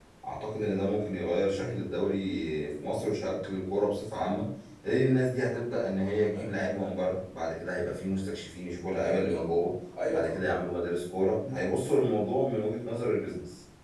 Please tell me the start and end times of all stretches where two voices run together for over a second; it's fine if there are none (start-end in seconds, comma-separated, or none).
none